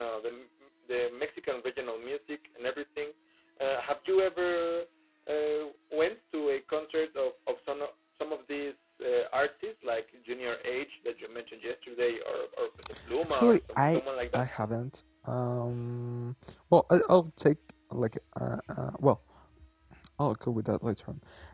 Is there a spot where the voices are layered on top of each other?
Yes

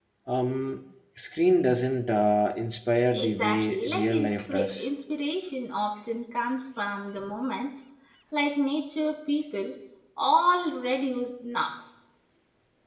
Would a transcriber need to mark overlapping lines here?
Yes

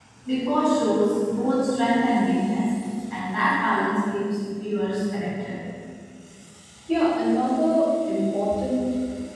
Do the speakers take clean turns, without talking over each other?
Yes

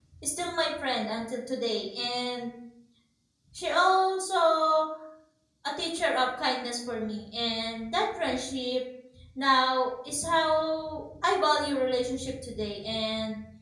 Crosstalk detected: No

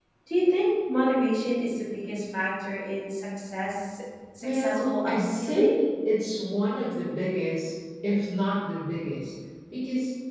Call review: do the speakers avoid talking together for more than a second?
No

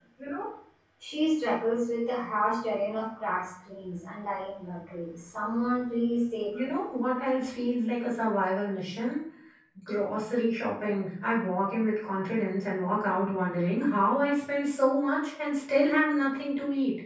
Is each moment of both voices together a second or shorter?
Yes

